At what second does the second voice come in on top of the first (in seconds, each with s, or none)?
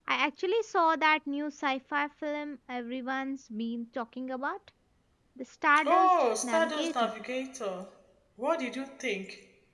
5.8 s